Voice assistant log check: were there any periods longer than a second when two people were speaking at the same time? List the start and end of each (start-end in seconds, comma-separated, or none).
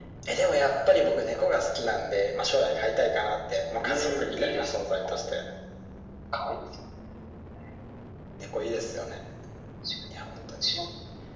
3.8-5.3